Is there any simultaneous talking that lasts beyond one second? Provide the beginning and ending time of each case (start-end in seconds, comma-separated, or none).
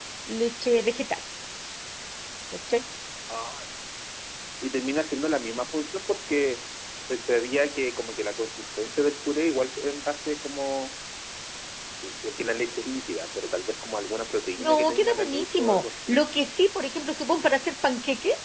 14.6-16.2